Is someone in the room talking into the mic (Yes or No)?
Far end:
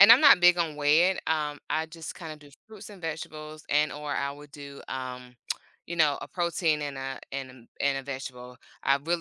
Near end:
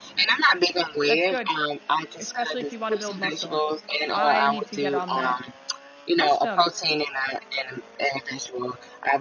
Yes